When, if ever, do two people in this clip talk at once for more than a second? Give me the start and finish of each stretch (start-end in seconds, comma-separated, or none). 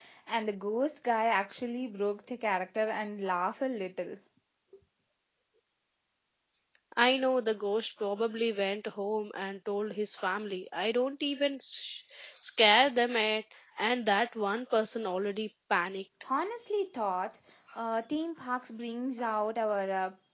none